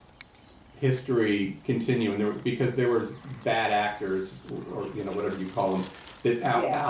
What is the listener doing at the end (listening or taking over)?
listening